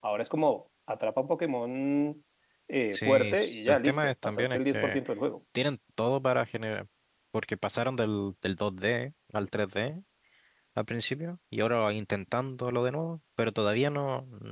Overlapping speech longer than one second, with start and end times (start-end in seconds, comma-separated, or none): 2.9-5.0